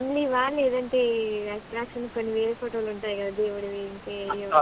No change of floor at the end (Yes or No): No